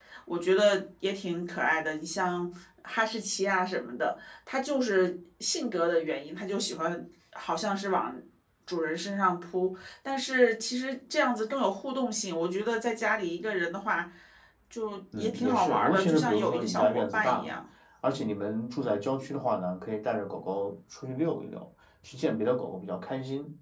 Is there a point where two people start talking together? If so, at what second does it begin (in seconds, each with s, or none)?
15.2 s